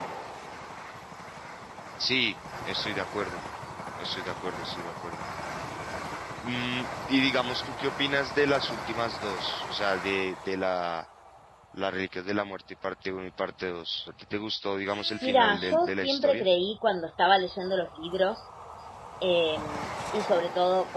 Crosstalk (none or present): present